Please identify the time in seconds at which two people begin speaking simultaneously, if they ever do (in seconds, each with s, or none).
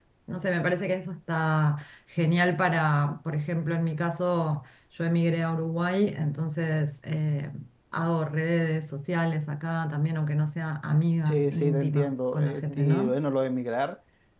11.3 s